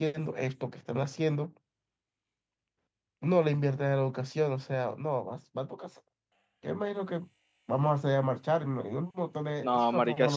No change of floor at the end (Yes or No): No